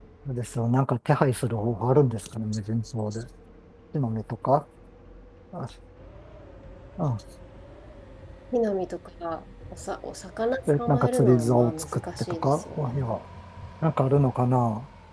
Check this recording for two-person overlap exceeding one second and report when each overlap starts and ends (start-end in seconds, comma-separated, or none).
10.7-13.1